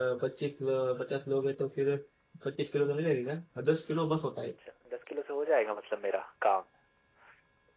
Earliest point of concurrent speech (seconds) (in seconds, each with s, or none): none